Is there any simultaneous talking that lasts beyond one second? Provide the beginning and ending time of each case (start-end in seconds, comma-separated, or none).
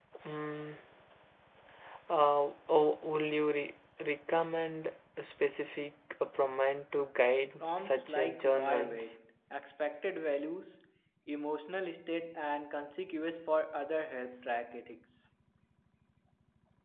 7.6-9.1